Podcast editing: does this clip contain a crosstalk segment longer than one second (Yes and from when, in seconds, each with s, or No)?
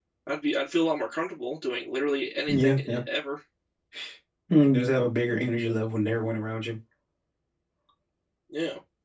No